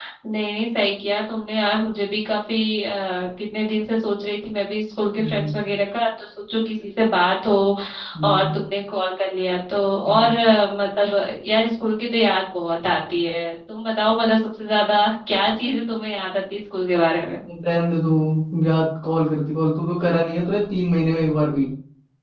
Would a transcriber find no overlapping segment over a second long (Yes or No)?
Yes